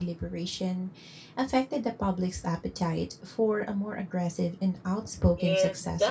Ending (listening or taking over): taking over